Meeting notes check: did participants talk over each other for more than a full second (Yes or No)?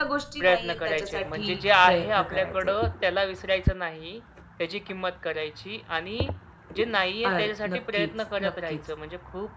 Yes